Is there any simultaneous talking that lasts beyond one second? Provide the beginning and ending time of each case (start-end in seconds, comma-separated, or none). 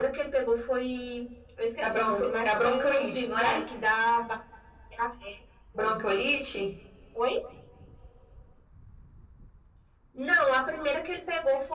1.8-3.5